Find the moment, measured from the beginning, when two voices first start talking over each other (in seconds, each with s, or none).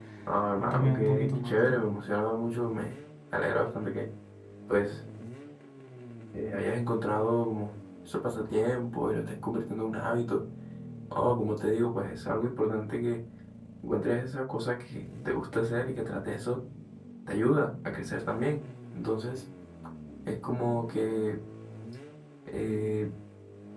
0.6 s